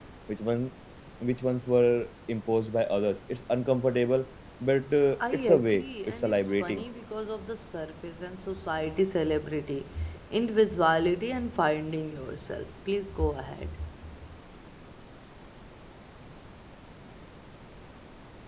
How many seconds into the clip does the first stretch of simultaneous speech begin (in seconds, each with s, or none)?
5.2 s